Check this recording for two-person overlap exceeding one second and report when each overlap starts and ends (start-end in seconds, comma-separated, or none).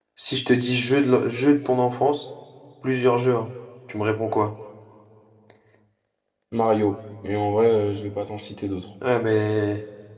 none